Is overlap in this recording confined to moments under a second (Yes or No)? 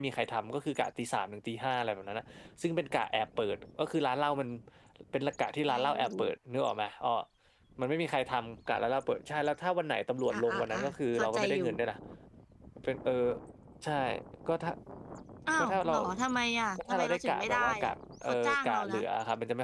No